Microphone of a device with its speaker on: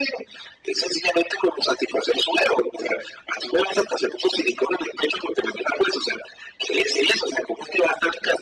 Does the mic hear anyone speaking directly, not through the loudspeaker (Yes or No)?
No